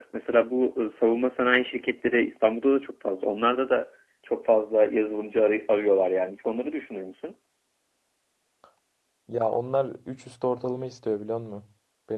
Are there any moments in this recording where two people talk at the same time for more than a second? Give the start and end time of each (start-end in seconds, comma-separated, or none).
none